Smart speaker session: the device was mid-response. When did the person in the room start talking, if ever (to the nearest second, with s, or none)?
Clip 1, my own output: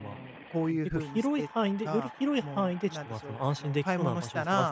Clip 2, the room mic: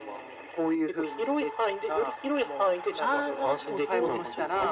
3 s